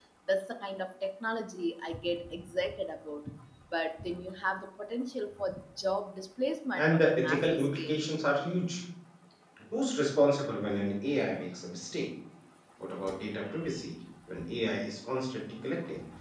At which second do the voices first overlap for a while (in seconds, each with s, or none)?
6.8 s